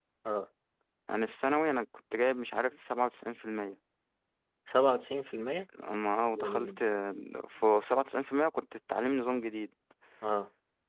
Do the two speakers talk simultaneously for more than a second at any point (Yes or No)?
No